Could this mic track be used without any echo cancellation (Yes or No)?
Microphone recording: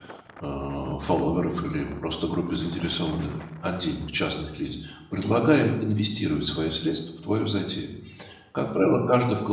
Yes